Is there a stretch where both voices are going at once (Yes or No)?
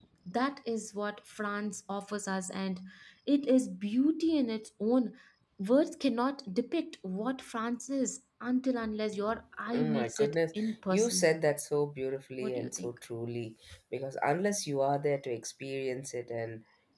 Yes